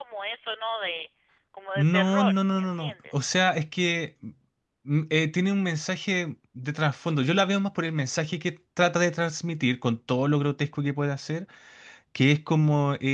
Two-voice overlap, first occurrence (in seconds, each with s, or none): 1.8 s